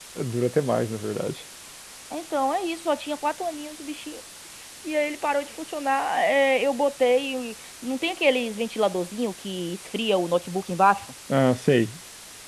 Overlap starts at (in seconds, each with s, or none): none